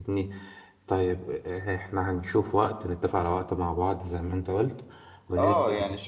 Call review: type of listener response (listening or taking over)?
taking over